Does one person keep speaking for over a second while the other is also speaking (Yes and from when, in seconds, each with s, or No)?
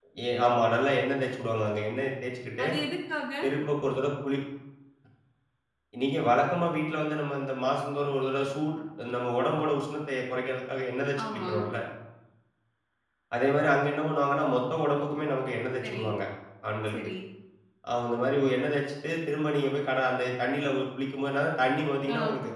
No